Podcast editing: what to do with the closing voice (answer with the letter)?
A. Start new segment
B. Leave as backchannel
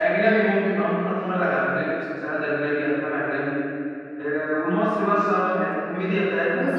A